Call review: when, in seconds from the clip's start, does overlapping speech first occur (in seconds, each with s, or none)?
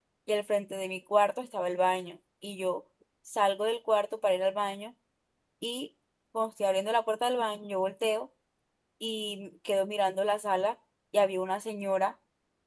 none